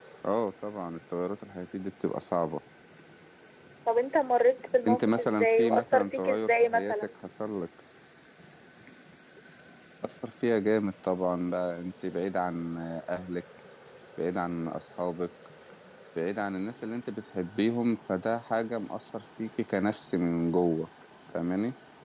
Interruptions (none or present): present